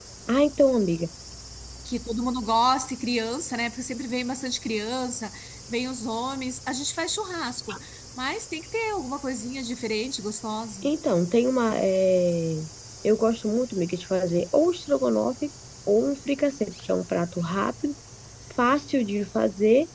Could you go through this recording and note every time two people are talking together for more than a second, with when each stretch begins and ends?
none

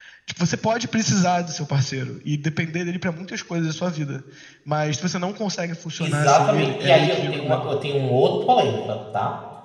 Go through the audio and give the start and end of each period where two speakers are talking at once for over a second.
6.0-7.7

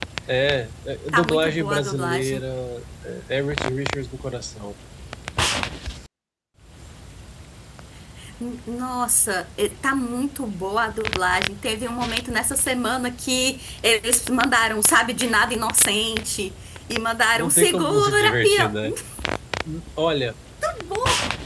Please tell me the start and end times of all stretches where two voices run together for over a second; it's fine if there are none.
1.1-2.4, 17.4-18.7

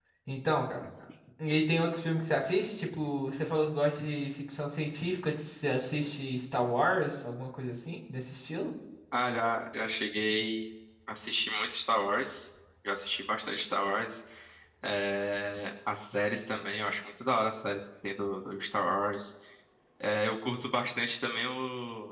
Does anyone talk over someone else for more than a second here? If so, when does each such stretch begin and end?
none

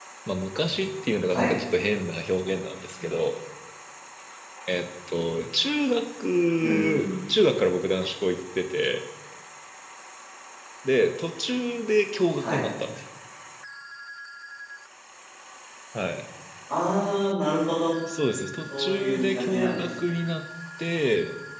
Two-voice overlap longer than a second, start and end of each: 18.7-20.1

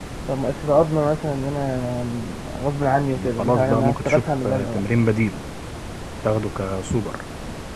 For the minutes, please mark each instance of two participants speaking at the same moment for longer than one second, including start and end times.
3.4-4.8

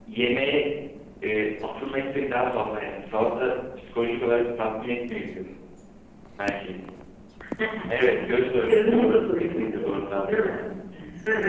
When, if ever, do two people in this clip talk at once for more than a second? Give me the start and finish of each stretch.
8.7-10.5

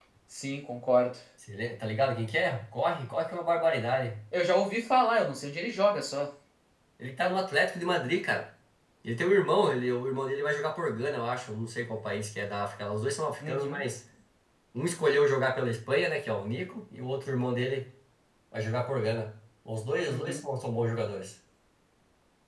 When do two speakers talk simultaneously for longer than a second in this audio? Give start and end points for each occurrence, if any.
none

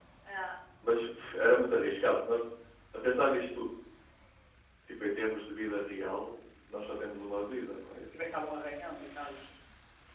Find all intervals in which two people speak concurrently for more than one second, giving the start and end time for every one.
none

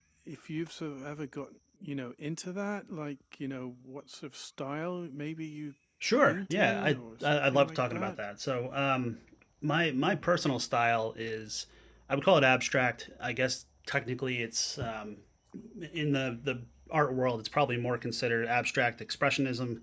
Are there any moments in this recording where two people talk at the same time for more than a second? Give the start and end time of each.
6.2-8.2

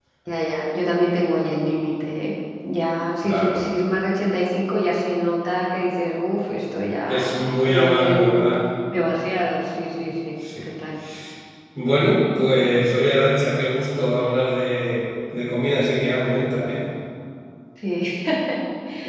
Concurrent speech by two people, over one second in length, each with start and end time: 7.1-8.5

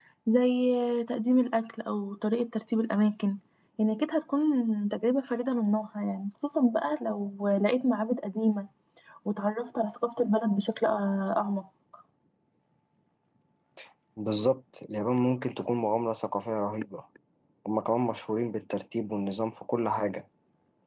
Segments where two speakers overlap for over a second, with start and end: none

